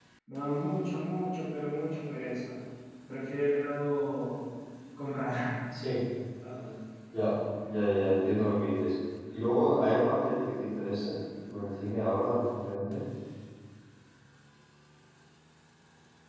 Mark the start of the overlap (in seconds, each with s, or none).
none